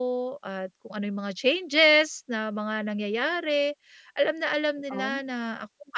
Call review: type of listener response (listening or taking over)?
listening